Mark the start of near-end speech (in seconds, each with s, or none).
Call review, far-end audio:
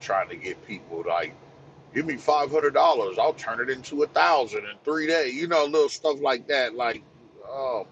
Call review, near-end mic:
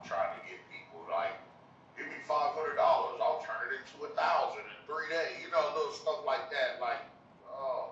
none